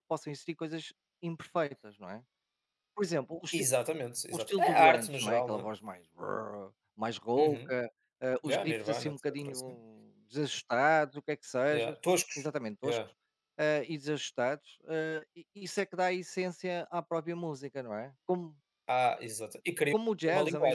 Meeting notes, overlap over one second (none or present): present